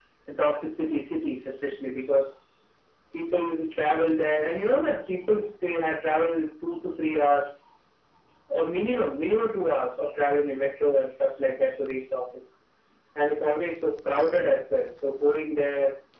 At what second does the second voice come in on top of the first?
none

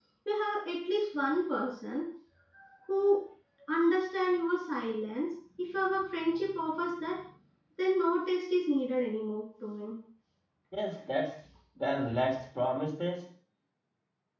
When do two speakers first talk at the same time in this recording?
none

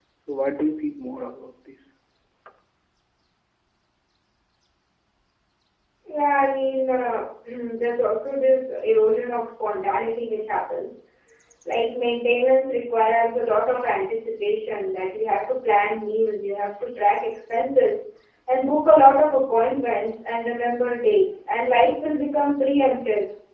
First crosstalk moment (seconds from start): none

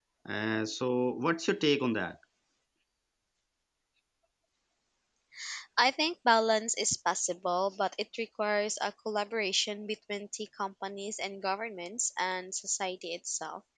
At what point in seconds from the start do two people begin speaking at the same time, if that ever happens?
none

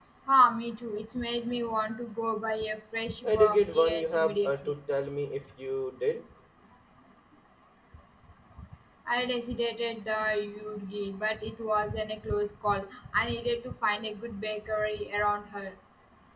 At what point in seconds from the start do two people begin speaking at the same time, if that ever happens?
3 s

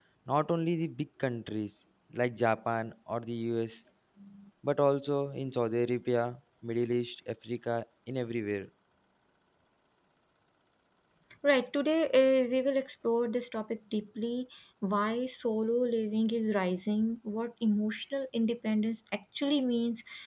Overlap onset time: none

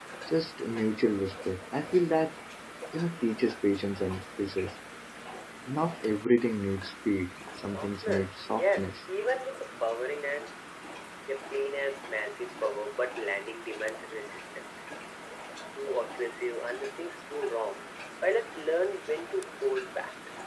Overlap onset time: 8 s

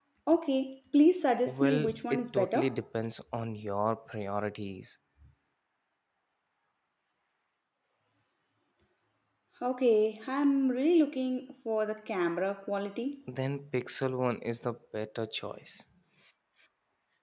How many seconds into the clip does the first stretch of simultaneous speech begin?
1 s

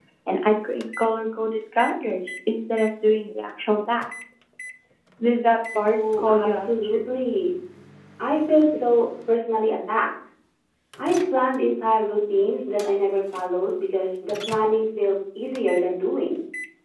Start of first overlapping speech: 6 s

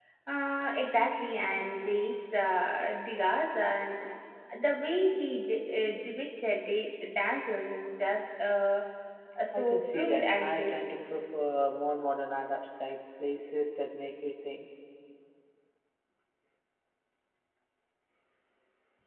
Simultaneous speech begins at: 10 s

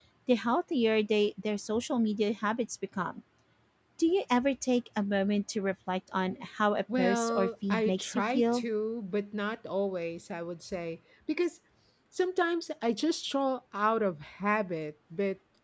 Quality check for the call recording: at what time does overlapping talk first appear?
7 s

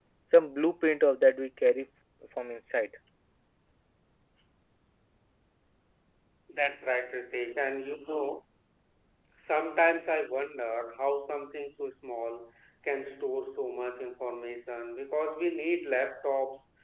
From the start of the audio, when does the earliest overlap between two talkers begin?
none

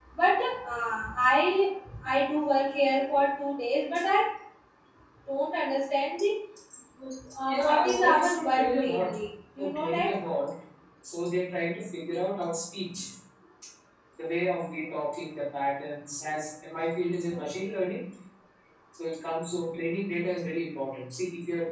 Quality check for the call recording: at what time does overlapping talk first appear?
7 s

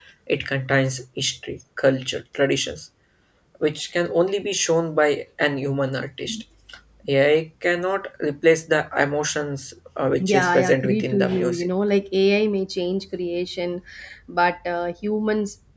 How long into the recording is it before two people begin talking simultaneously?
10 s

